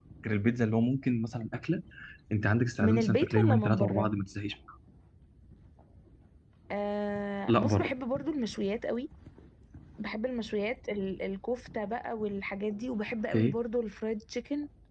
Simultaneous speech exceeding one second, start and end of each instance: 2.8-4.1

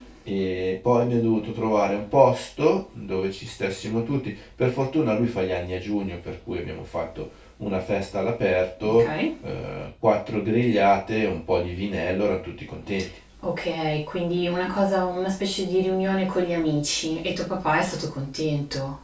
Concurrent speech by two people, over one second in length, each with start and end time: none

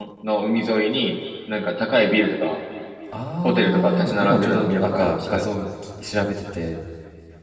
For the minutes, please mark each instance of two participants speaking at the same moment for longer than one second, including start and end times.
3.4-5.3

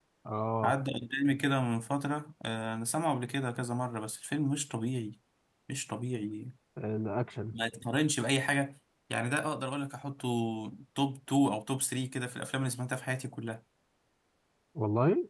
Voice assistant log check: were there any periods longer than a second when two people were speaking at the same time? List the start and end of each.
none

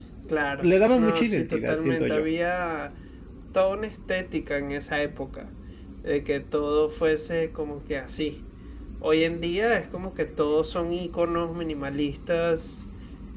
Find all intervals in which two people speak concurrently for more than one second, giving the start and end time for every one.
0.6-2.2

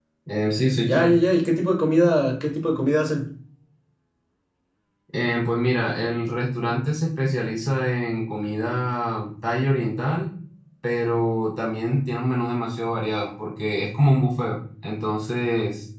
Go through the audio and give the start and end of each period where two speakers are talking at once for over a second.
none

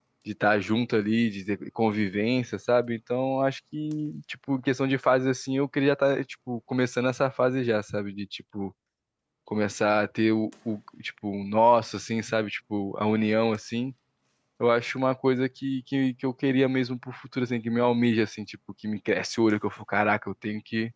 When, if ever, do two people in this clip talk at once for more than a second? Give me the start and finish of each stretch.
none

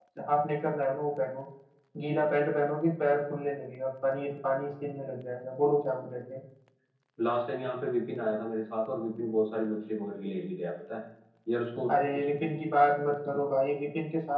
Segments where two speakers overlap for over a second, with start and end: none

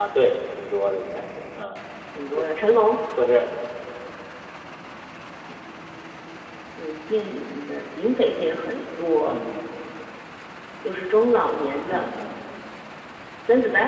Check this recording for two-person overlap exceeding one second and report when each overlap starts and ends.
none

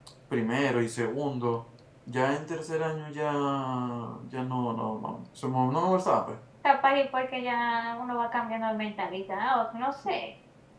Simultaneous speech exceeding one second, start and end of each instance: none

